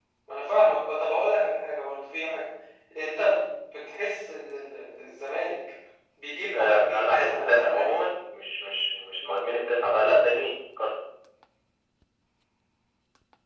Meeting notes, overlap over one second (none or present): present